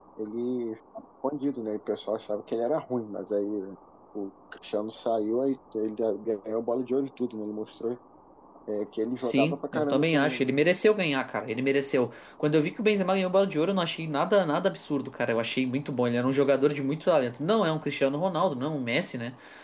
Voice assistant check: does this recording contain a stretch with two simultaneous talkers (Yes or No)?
Yes